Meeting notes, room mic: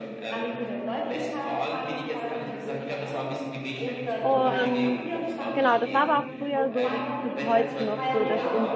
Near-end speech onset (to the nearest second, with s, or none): 4 s